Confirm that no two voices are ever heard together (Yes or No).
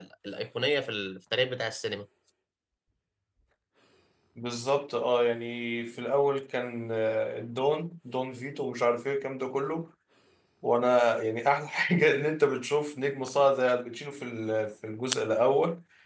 Yes